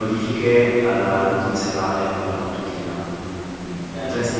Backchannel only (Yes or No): Yes